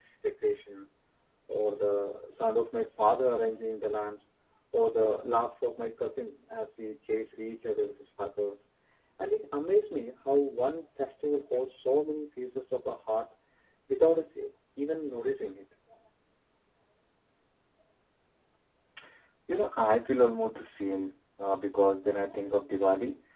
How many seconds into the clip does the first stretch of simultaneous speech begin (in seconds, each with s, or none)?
none